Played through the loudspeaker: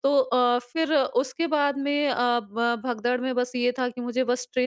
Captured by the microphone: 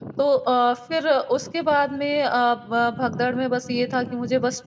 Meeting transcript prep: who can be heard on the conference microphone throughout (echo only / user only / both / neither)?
echo only